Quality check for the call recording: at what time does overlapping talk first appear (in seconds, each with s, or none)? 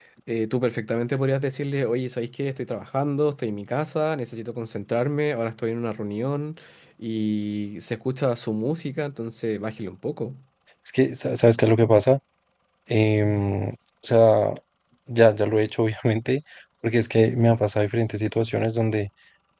none